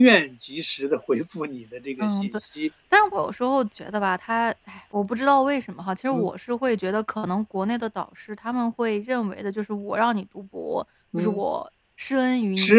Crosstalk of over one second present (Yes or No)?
No